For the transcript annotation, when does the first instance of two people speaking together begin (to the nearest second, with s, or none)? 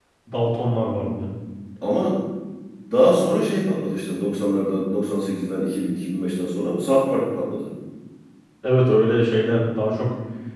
none